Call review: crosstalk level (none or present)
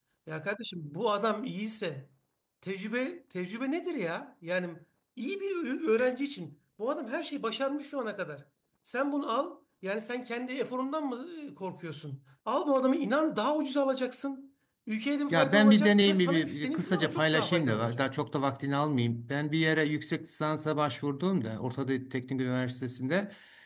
present